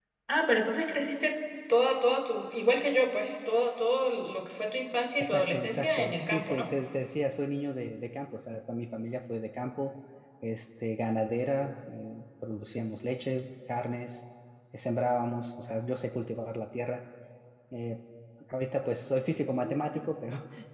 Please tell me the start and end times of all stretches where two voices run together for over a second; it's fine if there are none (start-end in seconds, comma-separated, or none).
5.2-6.7